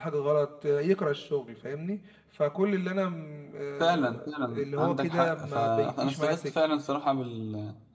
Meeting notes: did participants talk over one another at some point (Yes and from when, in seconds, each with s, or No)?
Yes, from 3.8 s